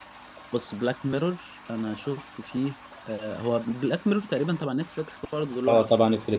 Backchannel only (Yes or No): No